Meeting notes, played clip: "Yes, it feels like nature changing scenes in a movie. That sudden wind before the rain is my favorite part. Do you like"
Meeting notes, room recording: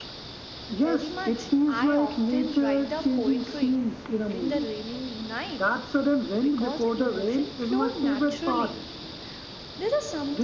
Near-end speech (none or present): present